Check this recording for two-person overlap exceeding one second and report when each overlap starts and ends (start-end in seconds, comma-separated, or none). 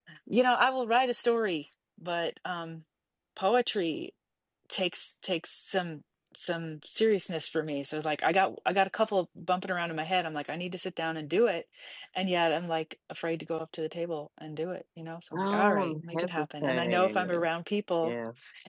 15.3-17.5